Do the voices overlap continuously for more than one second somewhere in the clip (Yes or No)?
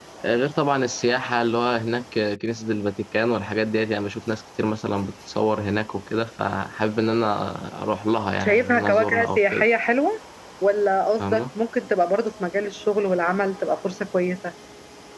Yes